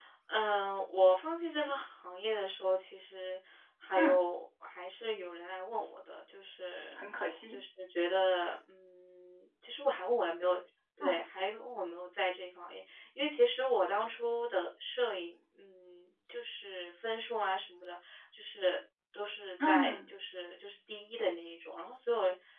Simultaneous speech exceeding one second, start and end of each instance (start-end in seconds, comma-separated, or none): none